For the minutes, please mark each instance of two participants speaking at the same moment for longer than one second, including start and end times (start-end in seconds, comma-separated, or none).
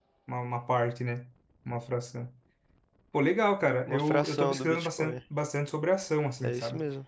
3.9-5.2